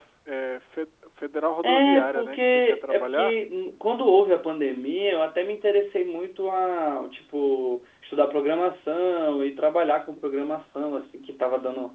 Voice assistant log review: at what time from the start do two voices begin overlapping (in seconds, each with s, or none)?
1.6 s